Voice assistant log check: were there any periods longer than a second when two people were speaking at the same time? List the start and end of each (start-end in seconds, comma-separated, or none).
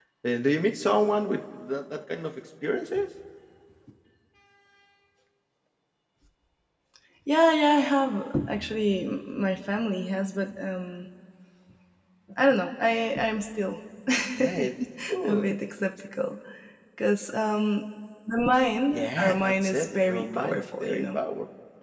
18.9-21.2